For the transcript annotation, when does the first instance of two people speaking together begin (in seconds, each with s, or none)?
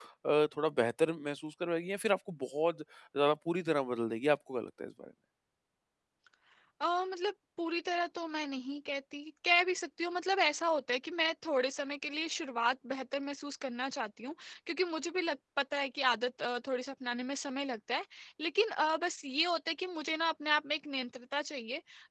none